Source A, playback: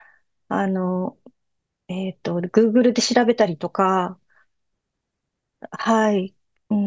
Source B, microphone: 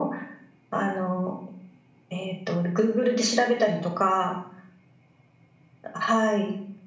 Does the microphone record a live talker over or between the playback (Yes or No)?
No